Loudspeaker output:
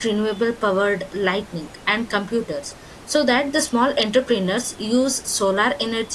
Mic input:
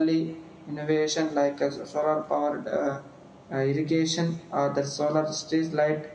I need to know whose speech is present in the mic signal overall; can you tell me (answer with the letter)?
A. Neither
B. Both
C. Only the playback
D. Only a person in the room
D